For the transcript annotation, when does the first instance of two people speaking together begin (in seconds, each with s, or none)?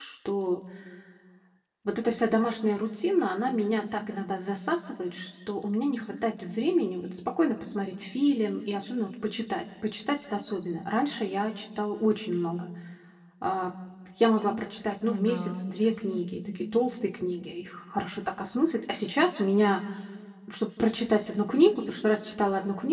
15.0 s